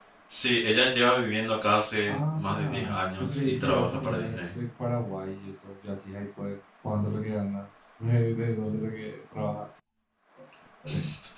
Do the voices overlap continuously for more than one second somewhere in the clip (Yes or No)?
Yes